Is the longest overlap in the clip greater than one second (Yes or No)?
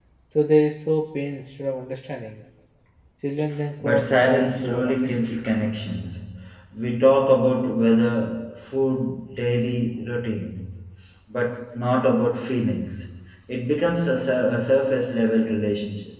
Yes